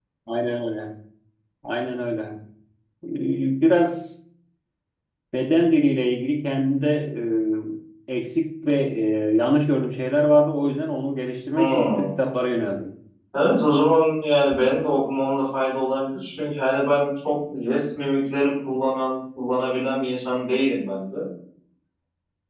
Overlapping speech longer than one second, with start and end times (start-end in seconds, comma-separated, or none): none